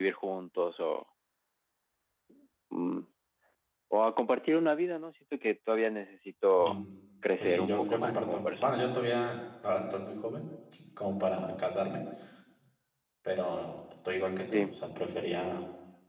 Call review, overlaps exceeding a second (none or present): present